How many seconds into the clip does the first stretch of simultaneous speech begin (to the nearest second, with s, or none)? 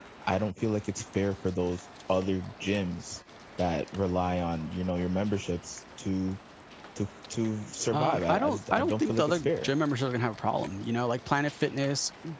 8 s